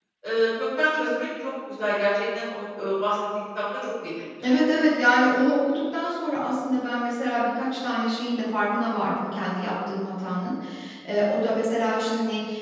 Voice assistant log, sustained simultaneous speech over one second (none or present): none